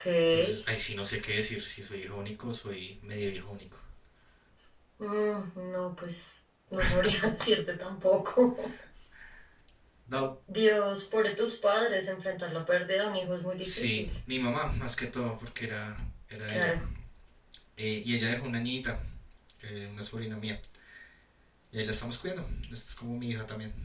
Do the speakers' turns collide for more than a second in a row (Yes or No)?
No